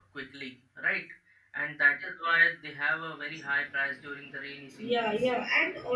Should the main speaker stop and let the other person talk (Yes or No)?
Yes